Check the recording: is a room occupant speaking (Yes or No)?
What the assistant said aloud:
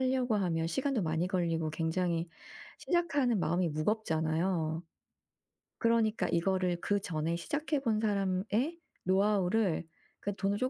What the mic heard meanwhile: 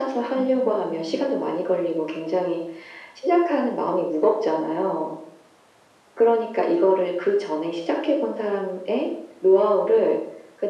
Yes